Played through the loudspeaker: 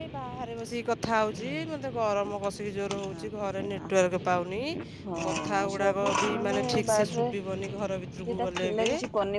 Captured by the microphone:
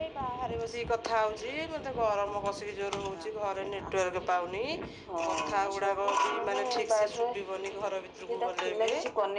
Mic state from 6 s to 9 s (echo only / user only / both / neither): echo only